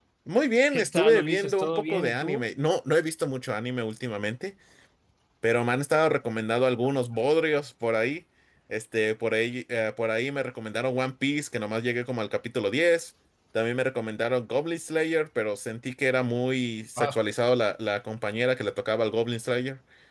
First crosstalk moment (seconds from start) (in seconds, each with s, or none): 0.7 s